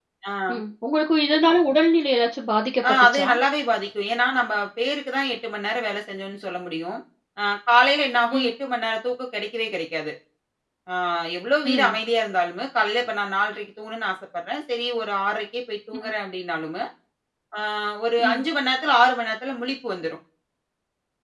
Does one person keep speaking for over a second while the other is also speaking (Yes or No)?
No